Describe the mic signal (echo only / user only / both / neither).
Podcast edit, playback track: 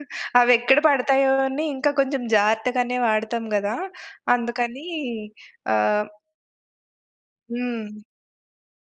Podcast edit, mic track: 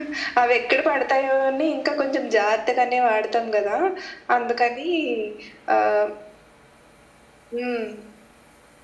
echo only